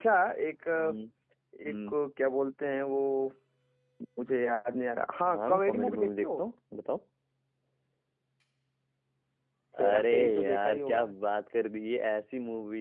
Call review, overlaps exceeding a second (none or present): present